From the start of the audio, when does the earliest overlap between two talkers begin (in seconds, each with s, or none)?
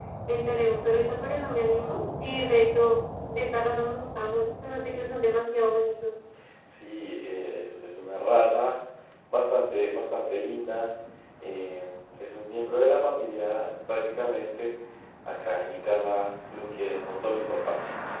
none